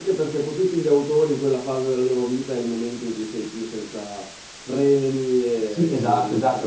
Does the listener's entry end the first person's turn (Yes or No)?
Yes